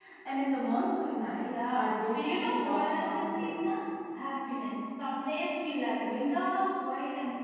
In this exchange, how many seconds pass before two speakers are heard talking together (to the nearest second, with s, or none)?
1 s